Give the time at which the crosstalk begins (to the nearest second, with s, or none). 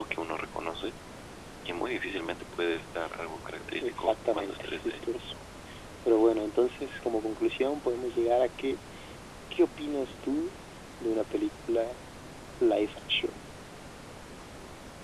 4 s